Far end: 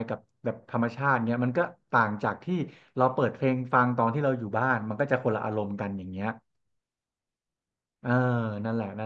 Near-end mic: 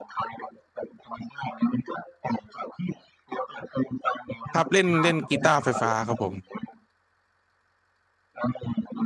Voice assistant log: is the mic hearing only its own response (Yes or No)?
No